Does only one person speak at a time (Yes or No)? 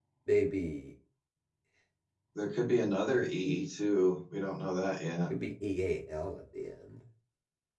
Yes